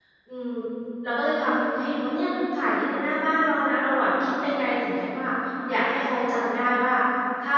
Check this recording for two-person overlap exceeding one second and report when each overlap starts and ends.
none

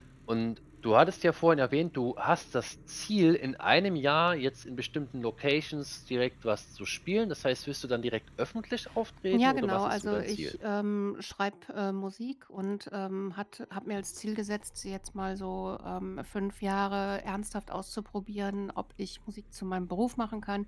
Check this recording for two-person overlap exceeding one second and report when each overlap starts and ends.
9.3-10.5

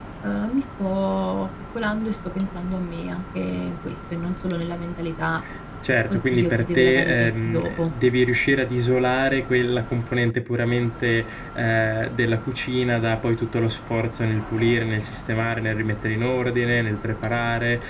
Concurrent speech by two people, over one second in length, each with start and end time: 6.1-7.9

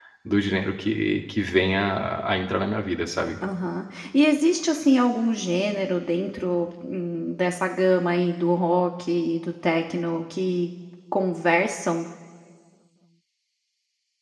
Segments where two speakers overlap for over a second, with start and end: none

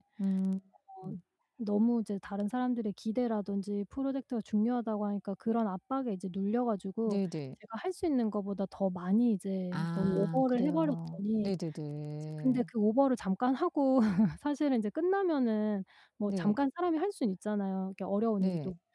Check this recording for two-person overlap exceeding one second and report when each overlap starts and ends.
9.7-11.5

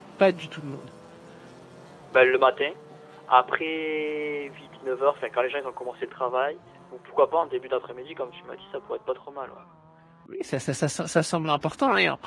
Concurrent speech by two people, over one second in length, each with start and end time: none

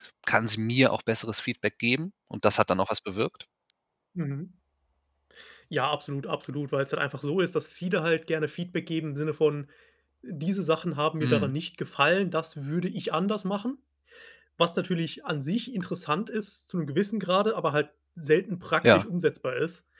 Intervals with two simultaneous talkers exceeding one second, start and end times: none

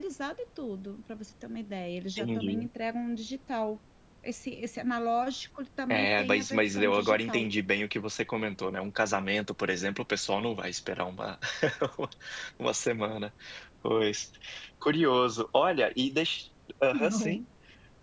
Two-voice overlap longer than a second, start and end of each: 5.9-7.5

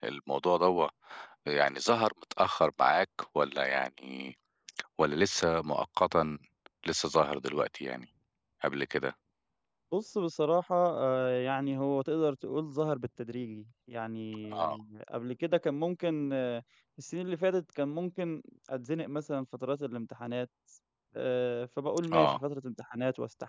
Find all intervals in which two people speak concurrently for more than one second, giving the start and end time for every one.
none

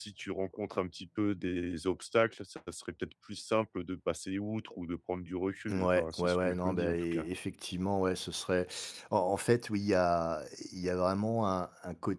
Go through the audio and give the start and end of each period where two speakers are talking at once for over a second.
5.7-7.3

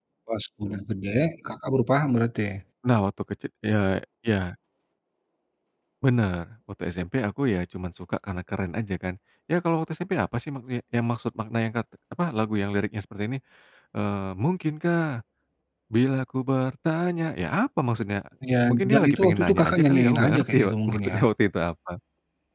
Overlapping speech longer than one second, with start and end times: 18.7-21.3

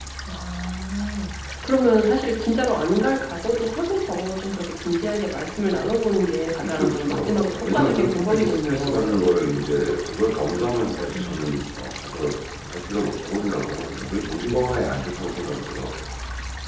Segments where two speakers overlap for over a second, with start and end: 6.6-9.0

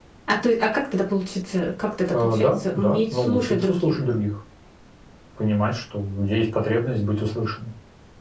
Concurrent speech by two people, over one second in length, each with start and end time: 2.1-4.0

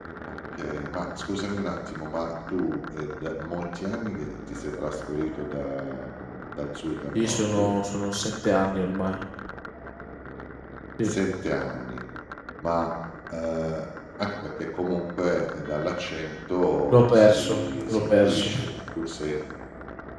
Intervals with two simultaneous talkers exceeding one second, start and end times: 16.9-18.5

